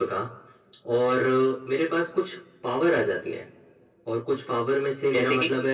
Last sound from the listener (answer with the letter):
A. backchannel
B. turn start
A